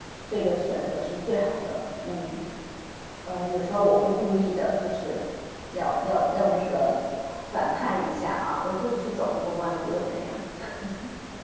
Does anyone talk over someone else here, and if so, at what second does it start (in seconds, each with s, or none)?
none